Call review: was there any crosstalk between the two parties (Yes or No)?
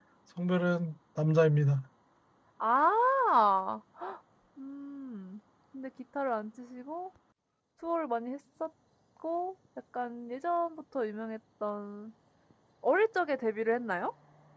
No